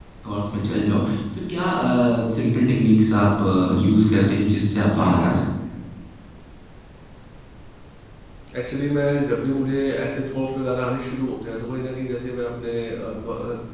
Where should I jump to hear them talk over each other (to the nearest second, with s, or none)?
none